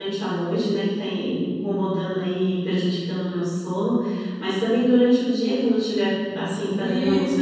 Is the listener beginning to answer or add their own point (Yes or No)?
No